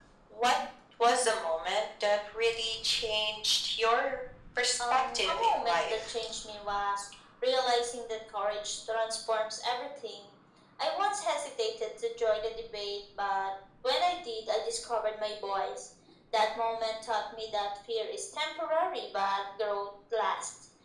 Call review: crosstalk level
present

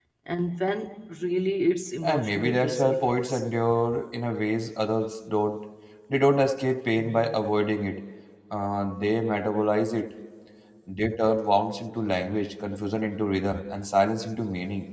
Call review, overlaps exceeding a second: present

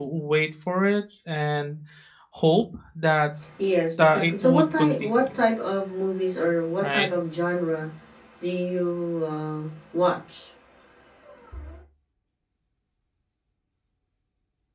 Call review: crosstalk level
present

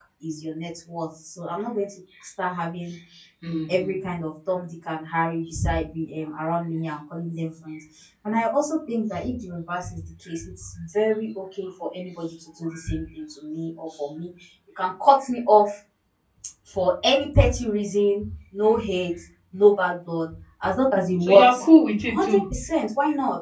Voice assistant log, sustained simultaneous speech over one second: none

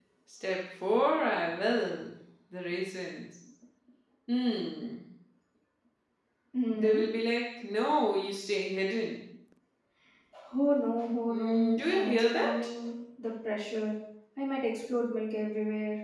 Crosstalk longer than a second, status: present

